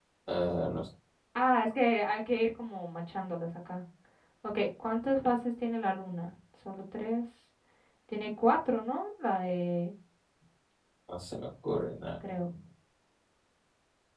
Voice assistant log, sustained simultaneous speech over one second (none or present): none